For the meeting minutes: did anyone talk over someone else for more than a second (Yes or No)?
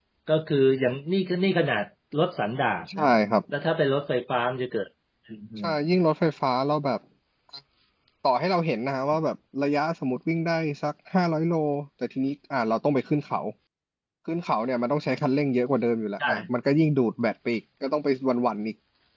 No